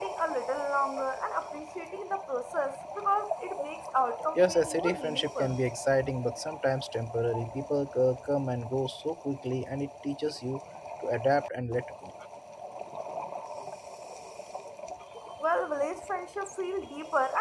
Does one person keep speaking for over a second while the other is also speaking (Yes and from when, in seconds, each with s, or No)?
Yes, from 4.3 s